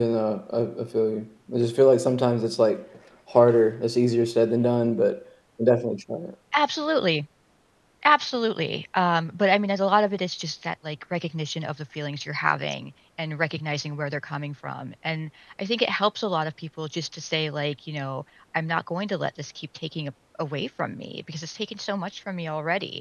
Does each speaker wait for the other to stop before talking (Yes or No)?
Yes